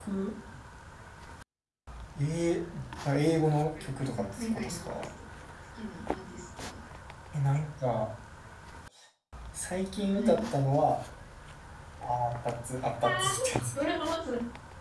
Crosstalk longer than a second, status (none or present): present